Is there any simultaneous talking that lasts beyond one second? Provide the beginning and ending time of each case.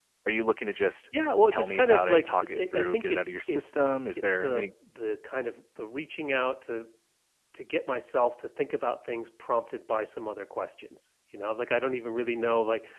1.5-3.8

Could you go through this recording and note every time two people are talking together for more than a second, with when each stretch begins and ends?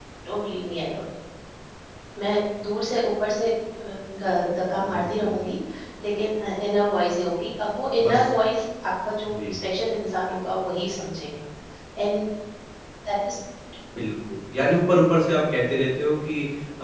none

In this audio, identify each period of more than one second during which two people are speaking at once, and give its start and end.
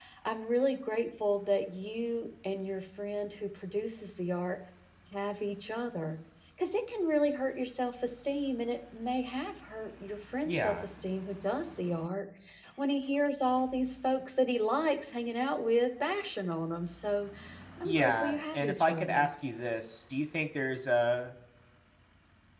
17.8-19.3

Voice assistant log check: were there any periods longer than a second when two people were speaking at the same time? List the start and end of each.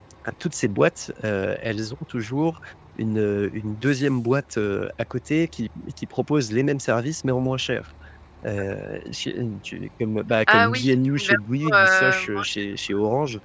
10.5-12.6

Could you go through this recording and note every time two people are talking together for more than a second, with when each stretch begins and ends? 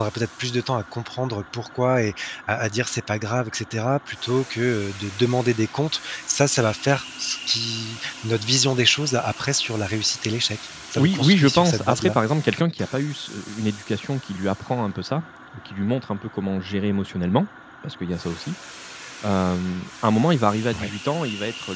10.9-12.2

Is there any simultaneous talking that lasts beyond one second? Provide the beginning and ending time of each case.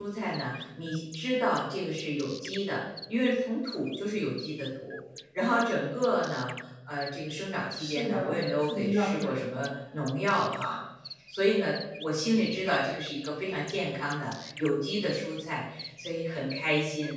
7.8-9.3

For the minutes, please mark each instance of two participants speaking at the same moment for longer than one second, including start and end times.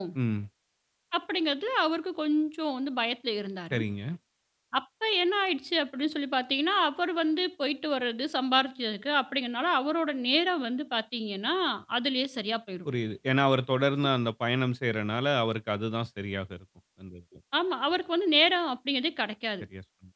none

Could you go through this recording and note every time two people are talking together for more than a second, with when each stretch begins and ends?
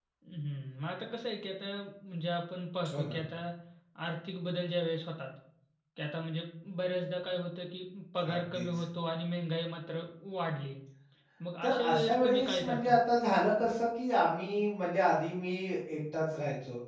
11.6-13.0

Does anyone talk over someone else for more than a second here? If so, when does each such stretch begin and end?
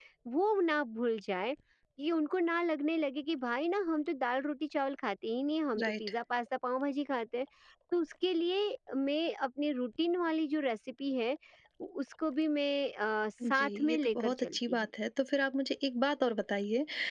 13.4-14.9

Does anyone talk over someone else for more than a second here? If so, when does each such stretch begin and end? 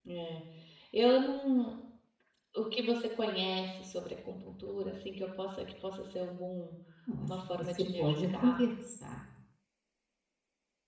7.3-8.6

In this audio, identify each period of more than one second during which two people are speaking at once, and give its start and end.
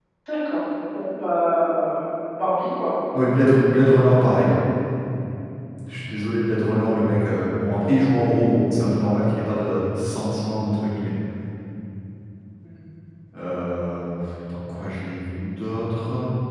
none

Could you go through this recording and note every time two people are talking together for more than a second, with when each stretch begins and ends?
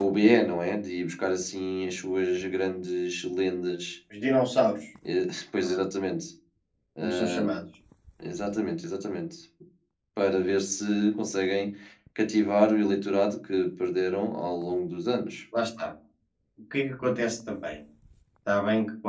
none

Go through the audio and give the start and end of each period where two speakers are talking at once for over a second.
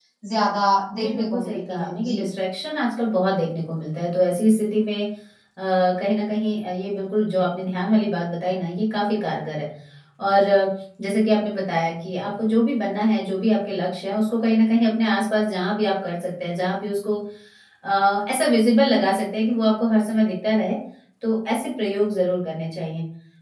0.9-2.2

